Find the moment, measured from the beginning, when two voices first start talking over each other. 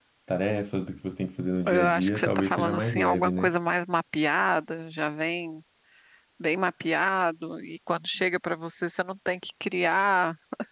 1.6 s

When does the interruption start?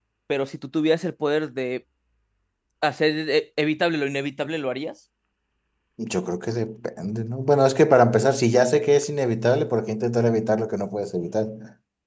none

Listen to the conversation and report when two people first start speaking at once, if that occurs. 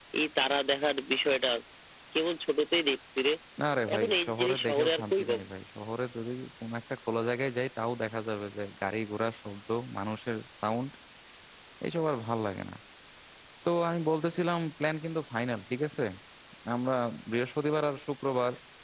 4.0 s

